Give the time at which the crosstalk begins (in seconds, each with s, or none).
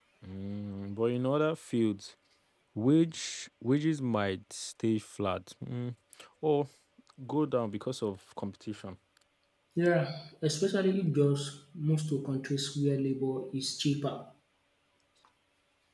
none